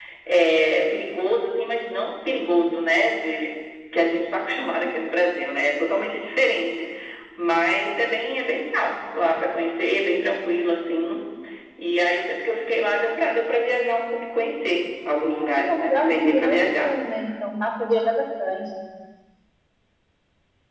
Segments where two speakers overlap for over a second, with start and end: 15.4-16.9

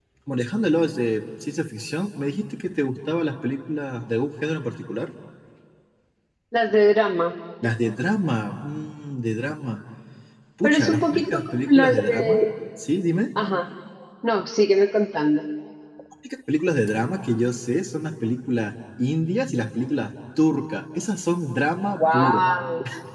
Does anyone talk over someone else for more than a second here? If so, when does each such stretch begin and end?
10.6-12.4

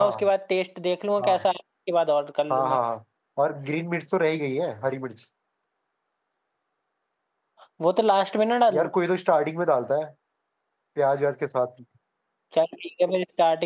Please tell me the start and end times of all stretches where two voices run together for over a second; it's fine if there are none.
none

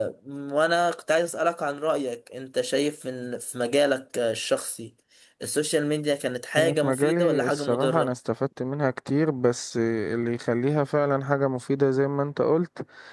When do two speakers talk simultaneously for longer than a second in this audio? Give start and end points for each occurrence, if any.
6.6-8.1

